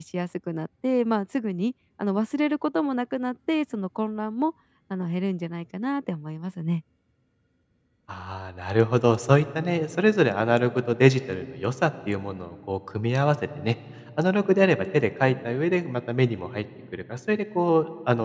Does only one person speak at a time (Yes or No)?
Yes